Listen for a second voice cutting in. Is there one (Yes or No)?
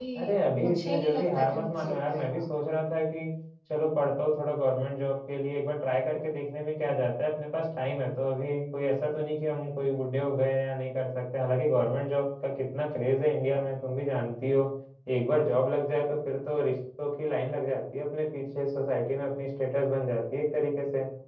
Yes